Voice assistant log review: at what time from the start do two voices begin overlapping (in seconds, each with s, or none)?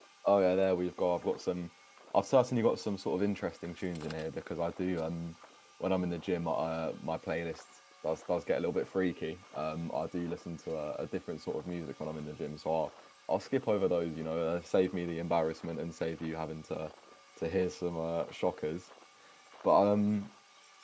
none